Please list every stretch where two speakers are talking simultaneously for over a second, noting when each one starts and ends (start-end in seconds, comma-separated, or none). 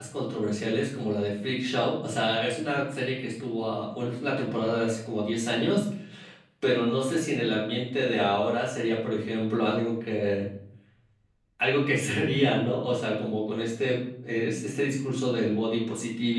none